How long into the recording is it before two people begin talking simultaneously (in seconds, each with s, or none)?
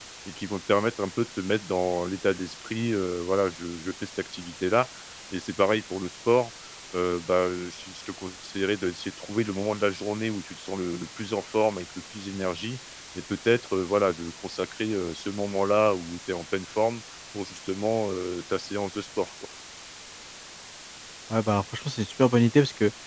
none